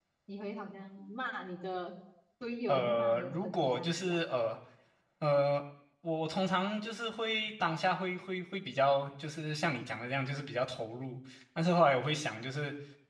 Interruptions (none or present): present